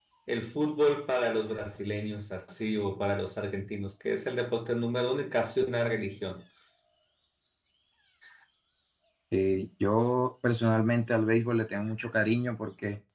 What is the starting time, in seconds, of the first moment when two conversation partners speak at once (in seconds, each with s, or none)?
none